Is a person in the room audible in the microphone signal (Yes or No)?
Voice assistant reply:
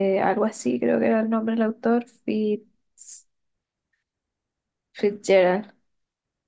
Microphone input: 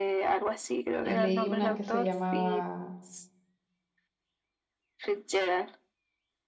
Yes